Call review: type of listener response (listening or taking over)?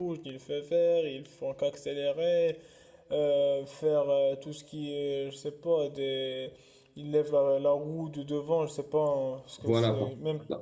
taking over